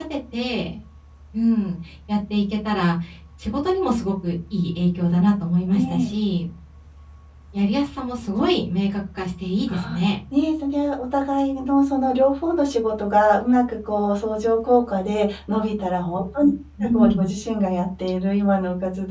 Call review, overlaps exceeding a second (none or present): none